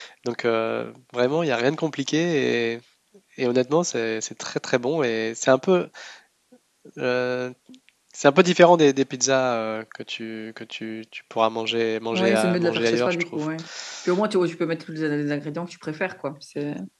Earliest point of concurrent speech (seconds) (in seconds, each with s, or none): 12.1 s